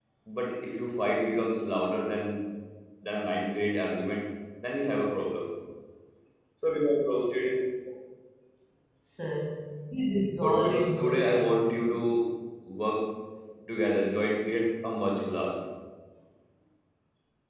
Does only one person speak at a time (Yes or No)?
No